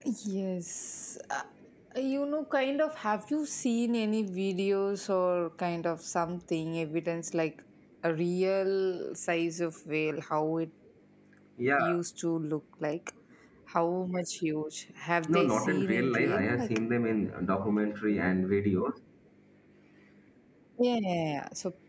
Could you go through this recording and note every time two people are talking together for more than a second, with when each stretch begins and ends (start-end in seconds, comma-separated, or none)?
15.3-16.7